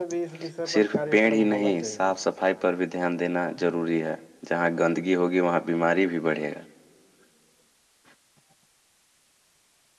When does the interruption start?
0.7 s

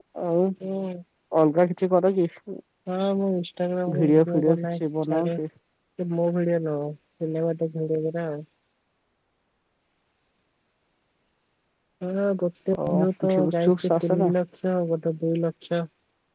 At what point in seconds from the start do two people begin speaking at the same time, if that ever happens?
4.0 s

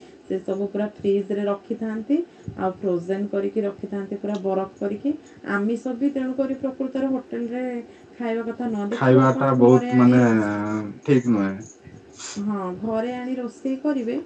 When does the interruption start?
9.0 s

